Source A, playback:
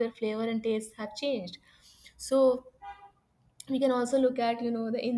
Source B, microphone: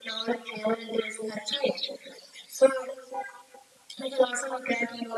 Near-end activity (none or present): none